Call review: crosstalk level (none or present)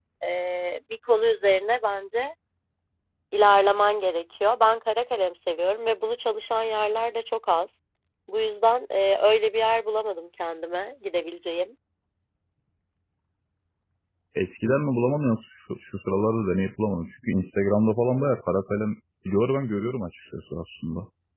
none